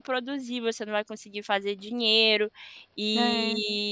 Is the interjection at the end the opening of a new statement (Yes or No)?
No